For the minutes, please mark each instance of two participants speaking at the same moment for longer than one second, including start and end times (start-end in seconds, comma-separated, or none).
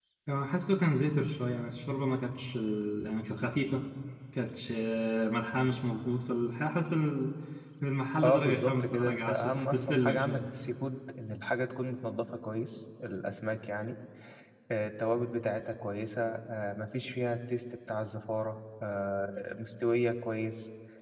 8.2-10.4